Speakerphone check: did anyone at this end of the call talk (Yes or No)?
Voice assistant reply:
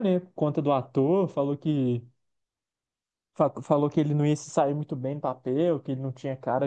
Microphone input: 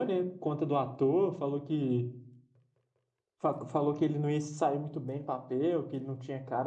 No